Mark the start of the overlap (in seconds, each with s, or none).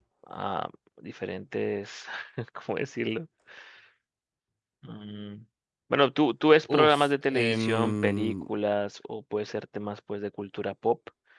6.7 s